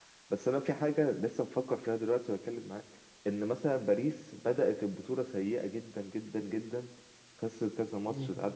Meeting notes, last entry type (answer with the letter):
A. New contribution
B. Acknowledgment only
B